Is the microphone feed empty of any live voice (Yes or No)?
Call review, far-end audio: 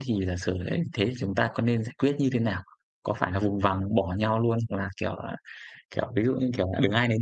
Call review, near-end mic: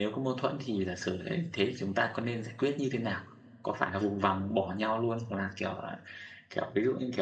Yes